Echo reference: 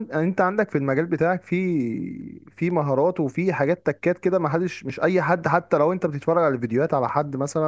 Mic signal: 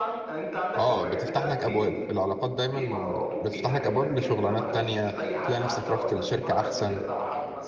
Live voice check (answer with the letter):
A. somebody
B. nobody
A